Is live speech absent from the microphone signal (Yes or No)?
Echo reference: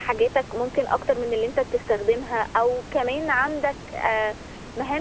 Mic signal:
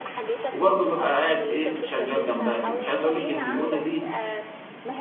No